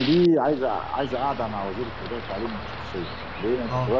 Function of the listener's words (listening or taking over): listening